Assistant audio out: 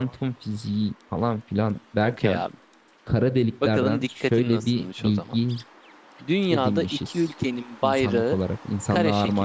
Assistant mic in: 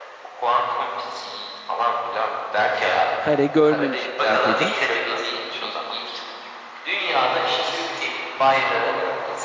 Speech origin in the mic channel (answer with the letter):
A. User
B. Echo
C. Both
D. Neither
C